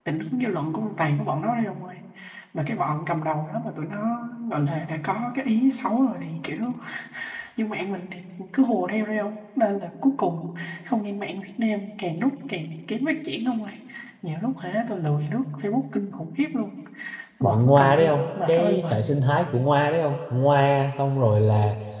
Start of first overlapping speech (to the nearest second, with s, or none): 17 s